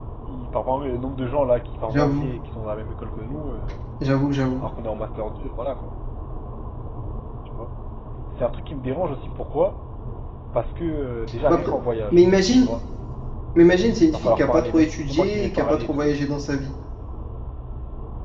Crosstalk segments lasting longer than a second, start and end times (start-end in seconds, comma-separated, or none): 14.1-16.1